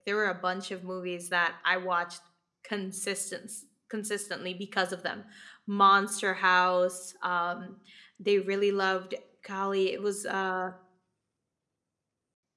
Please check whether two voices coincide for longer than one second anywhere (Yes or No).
No